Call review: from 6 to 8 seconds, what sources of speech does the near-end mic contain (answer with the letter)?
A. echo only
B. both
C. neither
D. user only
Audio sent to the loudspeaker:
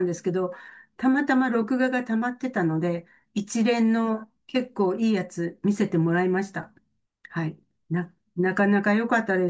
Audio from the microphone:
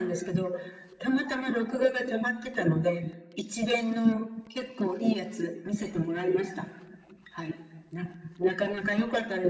A